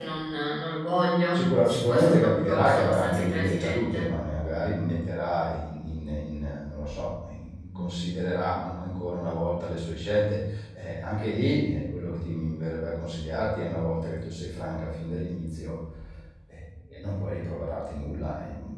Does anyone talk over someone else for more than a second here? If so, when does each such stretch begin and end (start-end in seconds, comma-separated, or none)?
1.3-4.1